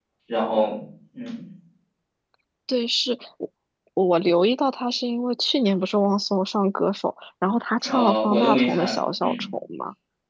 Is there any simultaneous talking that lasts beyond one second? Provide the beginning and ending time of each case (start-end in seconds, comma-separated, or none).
7.8-9.4